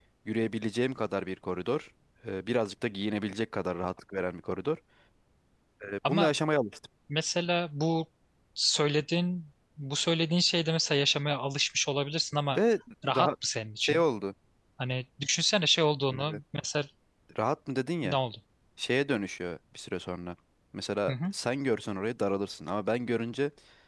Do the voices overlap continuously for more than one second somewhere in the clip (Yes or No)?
No